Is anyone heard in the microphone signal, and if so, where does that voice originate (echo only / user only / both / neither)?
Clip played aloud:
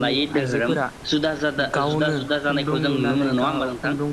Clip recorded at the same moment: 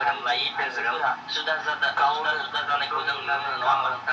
echo only